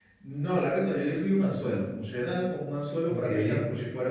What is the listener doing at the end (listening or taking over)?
listening